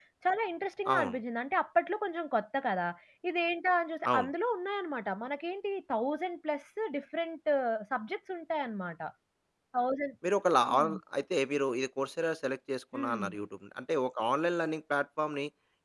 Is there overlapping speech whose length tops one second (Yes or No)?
No